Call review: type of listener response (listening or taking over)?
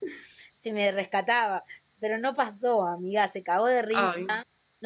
listening